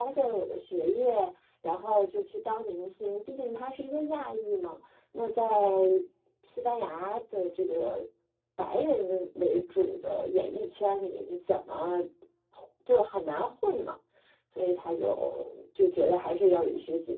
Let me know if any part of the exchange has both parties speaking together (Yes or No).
No